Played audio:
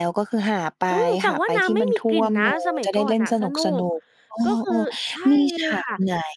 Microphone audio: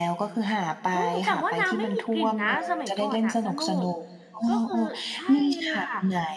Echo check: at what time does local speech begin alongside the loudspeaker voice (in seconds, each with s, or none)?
none